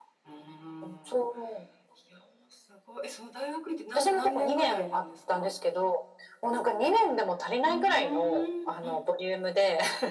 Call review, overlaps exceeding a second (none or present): present